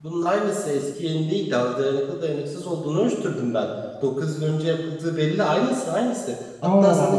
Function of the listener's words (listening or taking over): listening